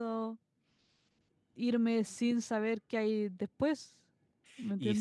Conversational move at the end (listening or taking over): taking over